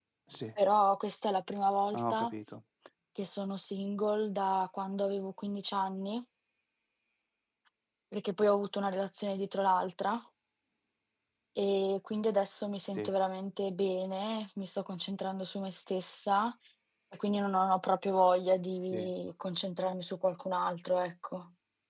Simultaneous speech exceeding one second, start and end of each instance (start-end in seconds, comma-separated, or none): none